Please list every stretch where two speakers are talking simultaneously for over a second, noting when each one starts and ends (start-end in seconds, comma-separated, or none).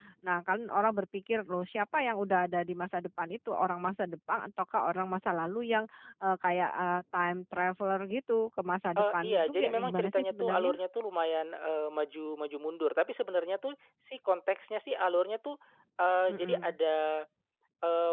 9.0-10.8